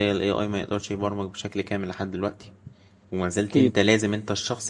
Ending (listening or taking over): listening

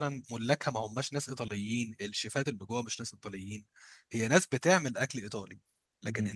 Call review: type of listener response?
listening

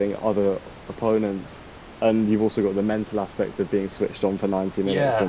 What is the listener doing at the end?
listening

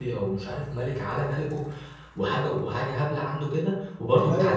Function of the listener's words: listening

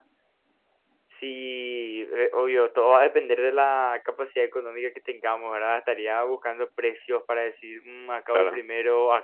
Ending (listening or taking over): listening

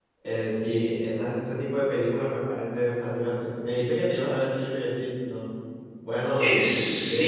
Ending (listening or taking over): taking over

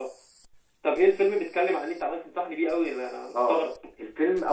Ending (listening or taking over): taking over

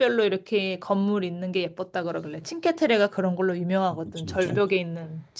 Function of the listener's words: listening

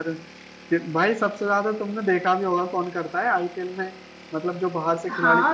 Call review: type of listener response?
taking over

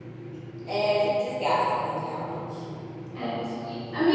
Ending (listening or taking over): taking over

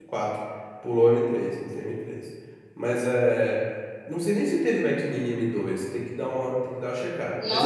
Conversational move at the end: taking over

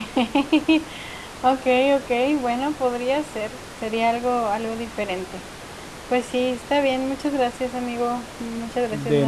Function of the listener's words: taking over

